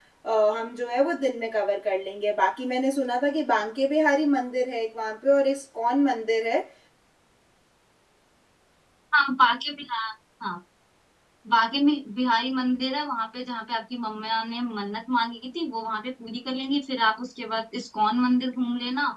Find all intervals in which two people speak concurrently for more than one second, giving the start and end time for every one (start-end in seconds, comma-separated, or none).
none